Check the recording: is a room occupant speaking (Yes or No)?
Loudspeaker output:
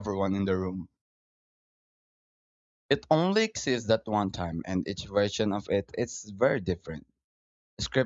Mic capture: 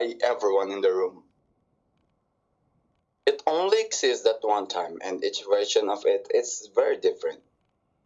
No